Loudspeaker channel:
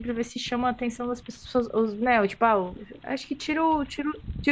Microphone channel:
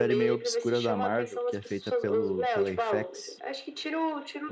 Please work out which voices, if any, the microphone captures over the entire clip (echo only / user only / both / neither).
both